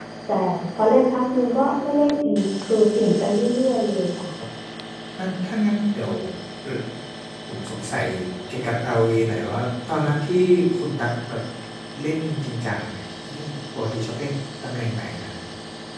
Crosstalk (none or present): none